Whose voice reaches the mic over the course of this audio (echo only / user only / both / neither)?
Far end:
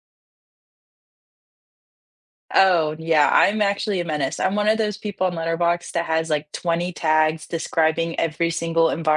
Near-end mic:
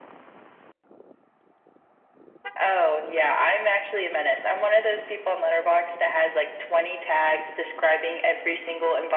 echo only